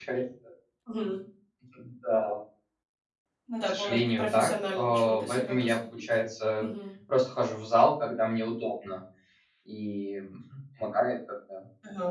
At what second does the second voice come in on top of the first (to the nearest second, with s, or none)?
4 s